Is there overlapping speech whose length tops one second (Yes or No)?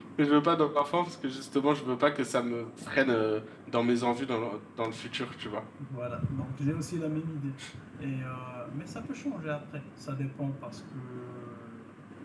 No